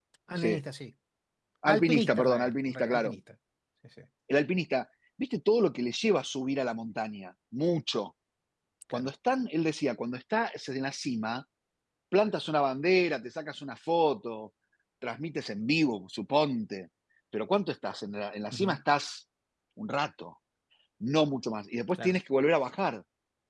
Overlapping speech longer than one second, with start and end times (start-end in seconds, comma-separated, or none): 1.7-3.1